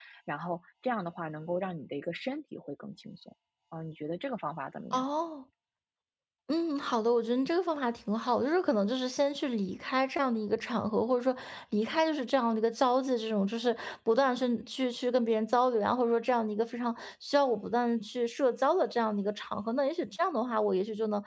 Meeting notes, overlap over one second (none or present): none